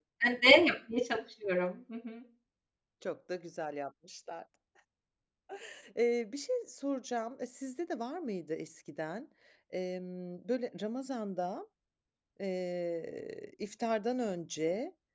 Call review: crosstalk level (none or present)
none